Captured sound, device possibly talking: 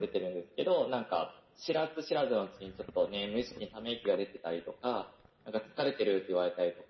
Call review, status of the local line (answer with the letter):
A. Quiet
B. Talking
A